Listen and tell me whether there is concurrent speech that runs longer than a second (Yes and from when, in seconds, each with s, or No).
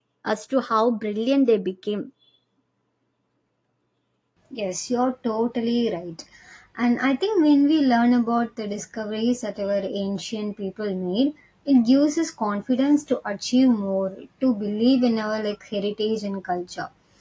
No